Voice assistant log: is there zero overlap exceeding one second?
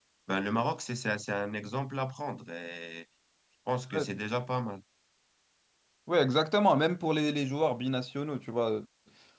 Yes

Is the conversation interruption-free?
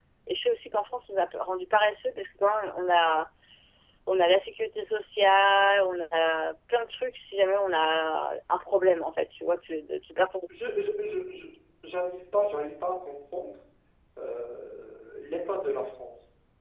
Yes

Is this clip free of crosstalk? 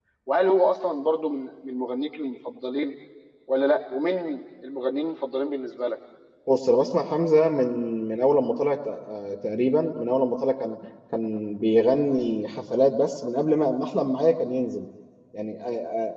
Yes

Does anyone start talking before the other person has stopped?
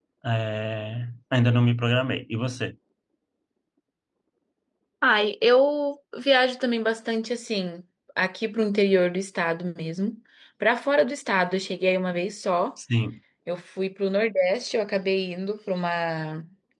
No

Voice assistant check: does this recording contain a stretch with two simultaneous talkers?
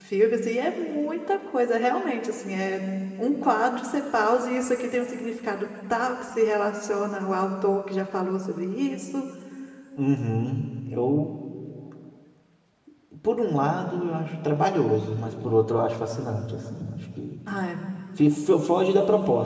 No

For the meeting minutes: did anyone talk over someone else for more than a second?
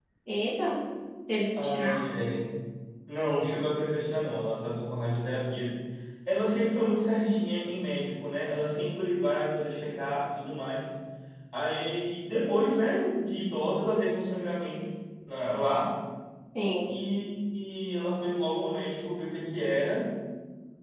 No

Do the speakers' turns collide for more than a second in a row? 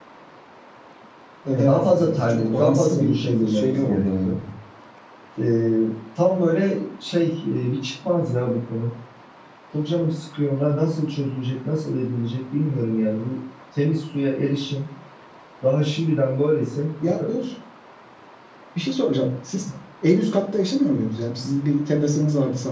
Yes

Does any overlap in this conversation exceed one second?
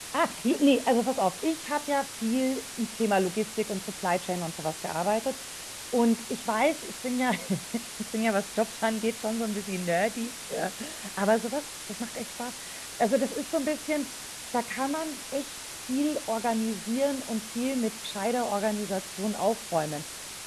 No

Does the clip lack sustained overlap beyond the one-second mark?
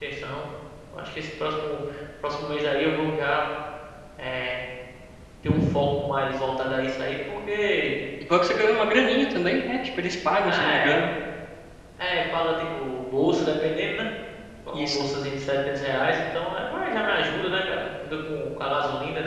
Yes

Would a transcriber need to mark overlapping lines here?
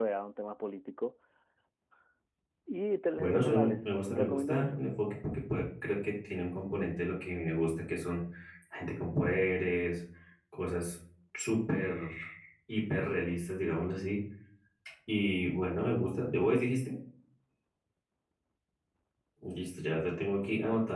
Yes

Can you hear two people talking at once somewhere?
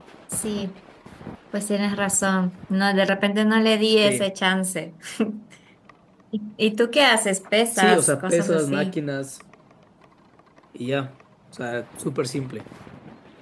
Yes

